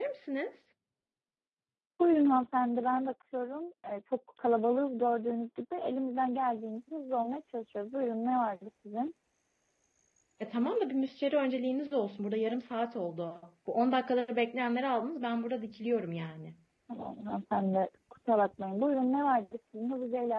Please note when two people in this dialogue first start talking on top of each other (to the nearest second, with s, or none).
none